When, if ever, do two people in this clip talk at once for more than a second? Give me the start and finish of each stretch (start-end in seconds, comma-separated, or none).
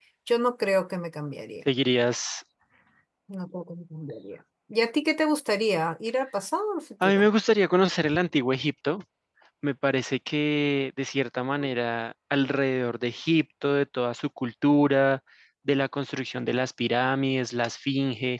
none